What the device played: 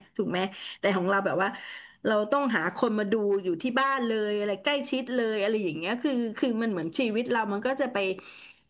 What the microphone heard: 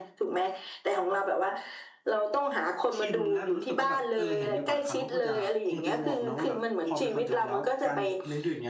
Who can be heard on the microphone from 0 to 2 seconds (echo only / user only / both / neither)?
echo only